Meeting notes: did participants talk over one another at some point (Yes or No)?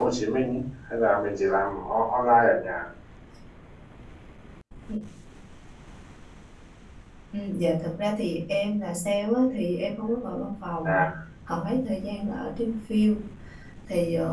No